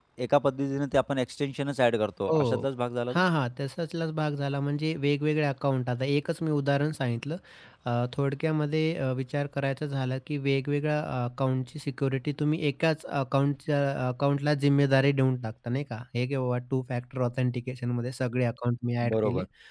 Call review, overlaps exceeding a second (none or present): none